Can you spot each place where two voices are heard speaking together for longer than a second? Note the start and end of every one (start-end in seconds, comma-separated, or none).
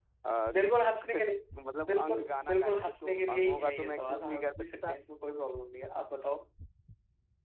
1.9-5.0